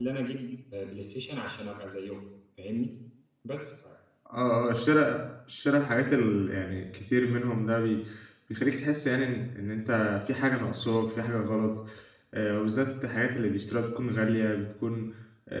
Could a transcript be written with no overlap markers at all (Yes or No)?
Yes